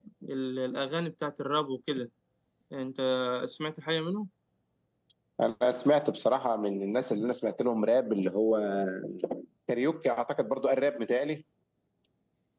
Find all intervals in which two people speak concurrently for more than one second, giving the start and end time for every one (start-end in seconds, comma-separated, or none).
none